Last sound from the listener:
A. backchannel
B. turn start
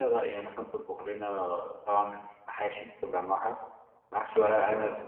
A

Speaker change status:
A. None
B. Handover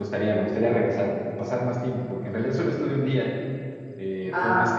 A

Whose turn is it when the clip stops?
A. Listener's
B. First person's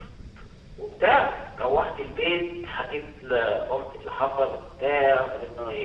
B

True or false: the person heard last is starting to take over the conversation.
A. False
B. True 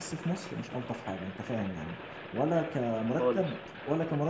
A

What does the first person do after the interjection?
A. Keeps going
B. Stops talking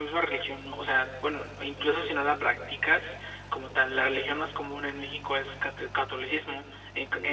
A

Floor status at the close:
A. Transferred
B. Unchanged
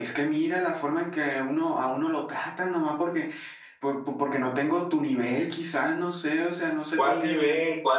A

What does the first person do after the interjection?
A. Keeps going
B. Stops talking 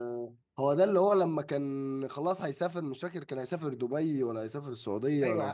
B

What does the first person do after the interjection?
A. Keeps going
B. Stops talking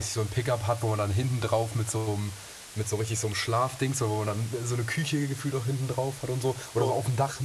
A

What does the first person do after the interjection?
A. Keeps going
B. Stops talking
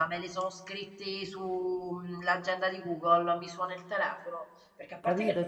B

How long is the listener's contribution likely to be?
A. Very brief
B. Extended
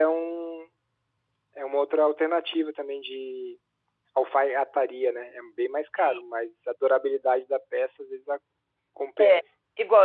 B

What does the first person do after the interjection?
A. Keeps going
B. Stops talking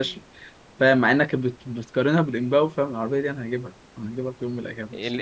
B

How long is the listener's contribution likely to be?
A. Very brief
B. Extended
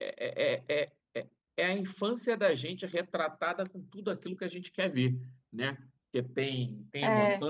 A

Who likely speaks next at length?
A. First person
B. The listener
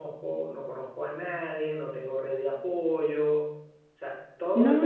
B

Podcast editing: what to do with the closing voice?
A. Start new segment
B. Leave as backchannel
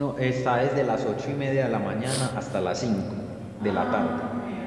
A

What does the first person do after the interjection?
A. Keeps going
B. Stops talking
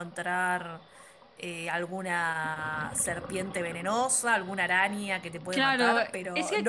B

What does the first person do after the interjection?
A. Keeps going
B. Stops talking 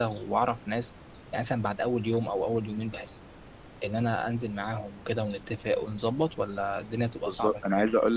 B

